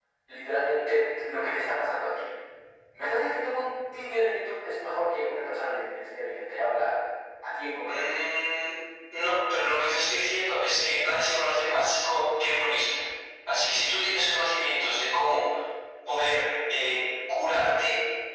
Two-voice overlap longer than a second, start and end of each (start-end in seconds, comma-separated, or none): none